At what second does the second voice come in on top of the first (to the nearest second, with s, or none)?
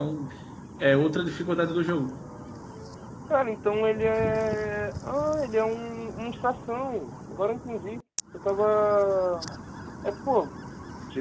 none